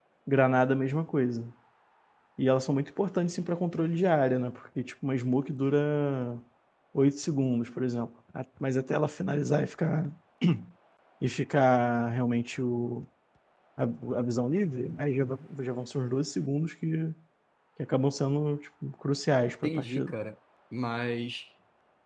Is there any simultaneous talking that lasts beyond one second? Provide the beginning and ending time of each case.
none

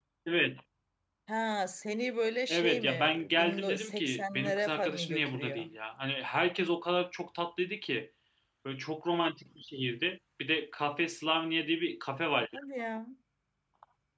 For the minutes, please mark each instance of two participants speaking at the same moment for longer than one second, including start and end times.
2.5-5.7

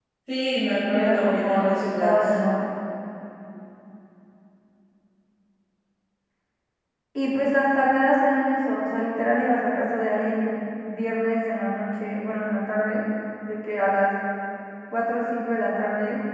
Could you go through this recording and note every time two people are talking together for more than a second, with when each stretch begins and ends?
0.9-2.1

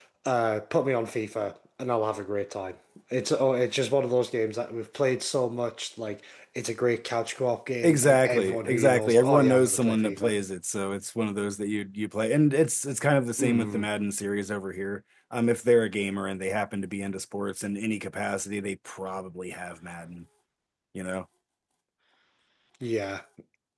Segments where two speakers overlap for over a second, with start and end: 7.8-10.3

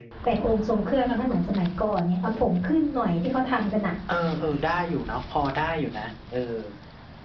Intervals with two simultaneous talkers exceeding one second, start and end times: none

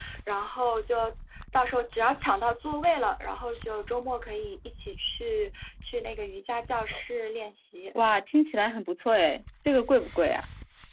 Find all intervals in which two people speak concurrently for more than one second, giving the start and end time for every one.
none

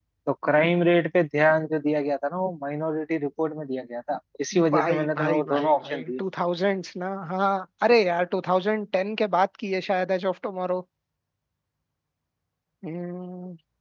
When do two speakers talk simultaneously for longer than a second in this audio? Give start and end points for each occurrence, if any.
4.7-6.2

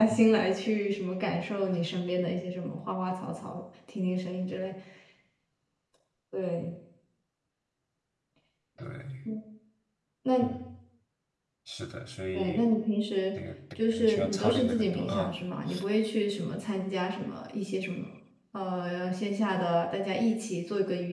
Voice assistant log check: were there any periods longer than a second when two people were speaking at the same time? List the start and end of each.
13.9-15.4

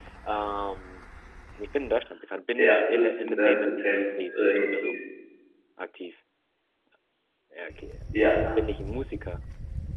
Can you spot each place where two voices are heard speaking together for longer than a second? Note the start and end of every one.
2.6-4.9

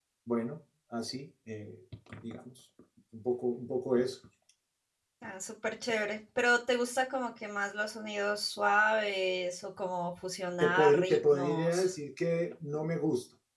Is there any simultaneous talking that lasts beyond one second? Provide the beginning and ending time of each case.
10.6-11.9

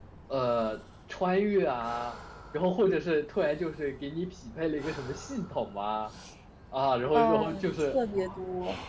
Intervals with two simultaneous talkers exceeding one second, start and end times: 7.1-8.4

